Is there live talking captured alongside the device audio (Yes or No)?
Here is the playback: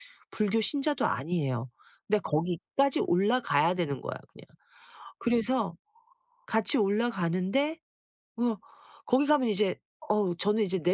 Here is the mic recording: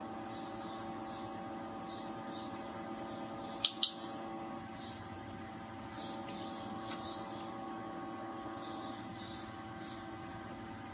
No